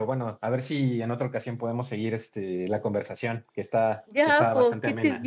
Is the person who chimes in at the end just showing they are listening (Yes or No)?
No